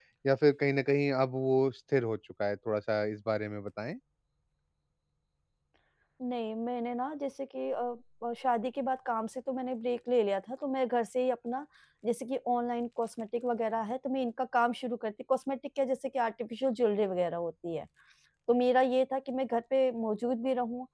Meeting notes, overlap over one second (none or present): none